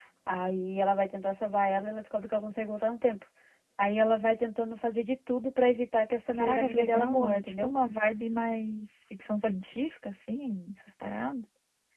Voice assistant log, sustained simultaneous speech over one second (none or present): present